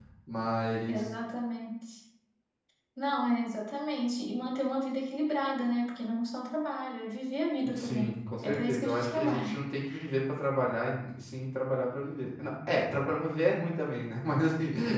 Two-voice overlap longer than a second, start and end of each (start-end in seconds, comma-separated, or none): 7.8-9.6